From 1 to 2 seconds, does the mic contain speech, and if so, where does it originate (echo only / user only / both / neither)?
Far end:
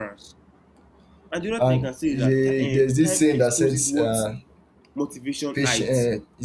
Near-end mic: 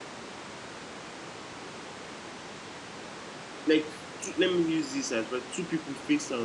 neither